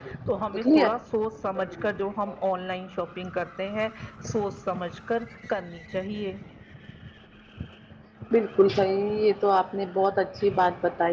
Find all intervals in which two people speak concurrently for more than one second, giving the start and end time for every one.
none

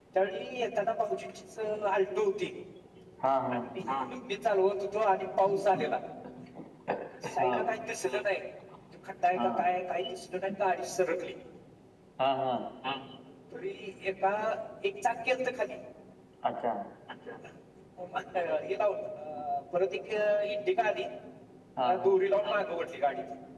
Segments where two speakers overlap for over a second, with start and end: none

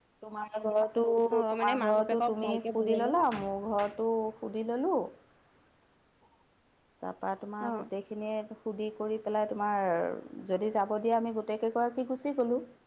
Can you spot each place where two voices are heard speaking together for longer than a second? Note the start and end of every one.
1.5-3.2

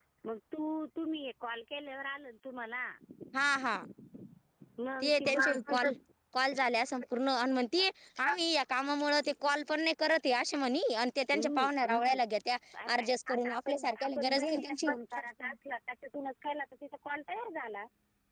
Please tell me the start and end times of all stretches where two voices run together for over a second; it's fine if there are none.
13.0-14.8

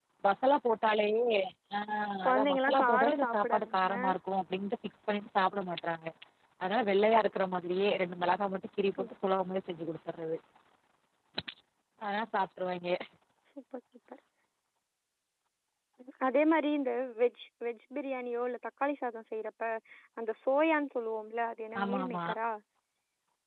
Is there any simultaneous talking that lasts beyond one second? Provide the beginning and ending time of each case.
2.2-3.9

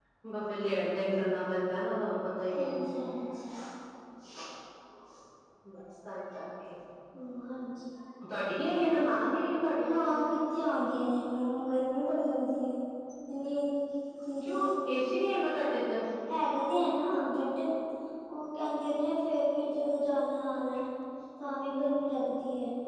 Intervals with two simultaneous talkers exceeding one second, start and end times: none

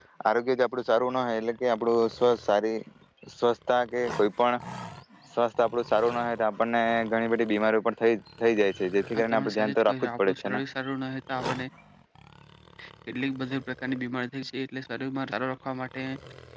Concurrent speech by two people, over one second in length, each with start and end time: 9.2-10.6

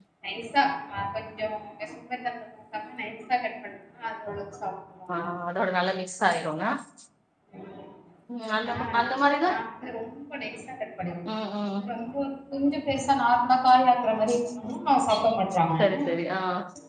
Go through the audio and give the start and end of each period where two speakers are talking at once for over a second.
none

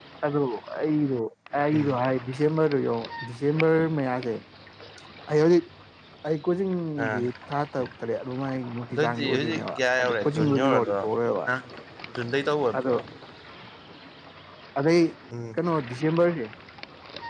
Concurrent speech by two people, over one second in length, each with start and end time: 8.9-11.0

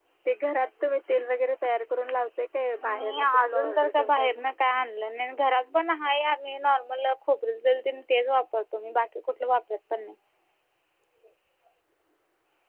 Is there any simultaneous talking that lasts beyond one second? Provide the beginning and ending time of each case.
2.9-4.4

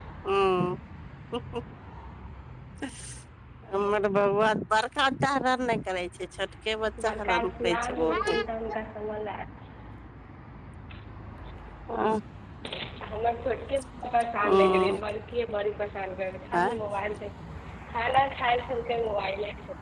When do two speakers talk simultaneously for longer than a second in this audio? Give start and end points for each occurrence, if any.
7.0-8.3

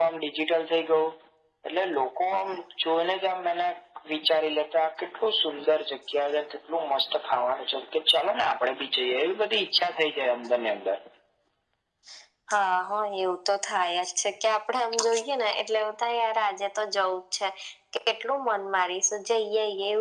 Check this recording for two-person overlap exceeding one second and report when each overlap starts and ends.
none

